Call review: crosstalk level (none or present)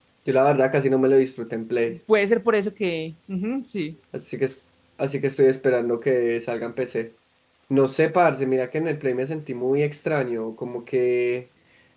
none